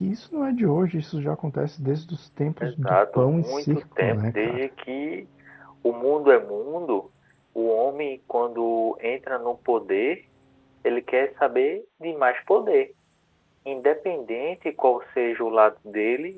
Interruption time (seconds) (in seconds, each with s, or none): 2.6 s